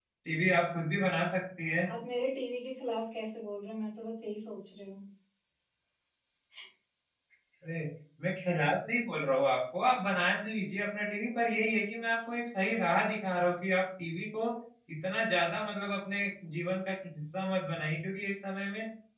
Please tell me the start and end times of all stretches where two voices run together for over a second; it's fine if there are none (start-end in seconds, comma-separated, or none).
none